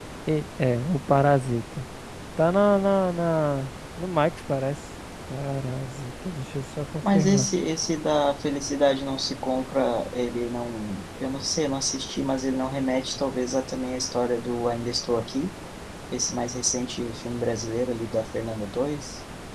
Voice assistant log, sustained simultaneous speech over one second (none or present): none